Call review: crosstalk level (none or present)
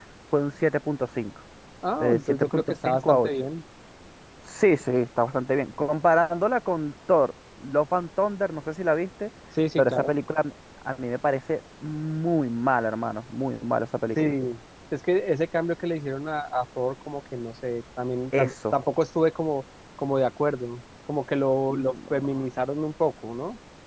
present